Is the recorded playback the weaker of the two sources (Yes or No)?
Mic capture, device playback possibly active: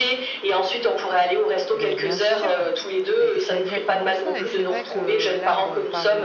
No